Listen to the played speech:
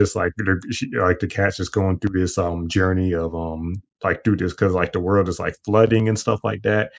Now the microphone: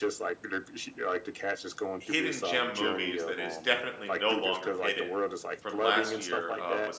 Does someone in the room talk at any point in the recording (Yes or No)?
Yes